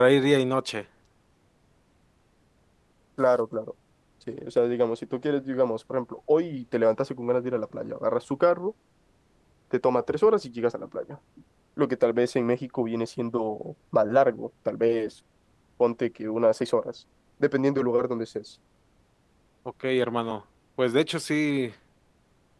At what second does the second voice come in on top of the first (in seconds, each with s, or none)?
none